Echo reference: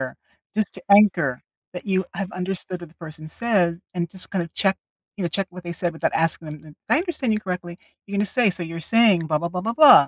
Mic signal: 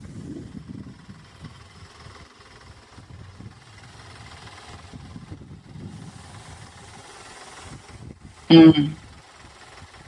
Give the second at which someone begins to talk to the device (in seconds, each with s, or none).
8.5 s